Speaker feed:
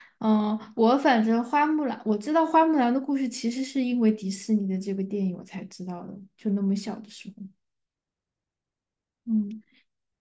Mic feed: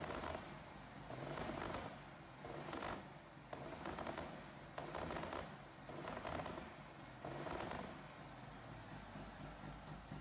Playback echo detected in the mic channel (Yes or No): No